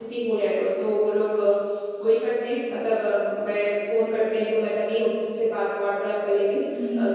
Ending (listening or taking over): listening